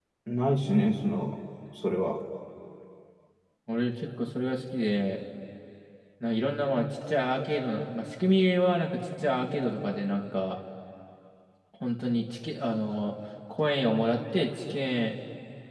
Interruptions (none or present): none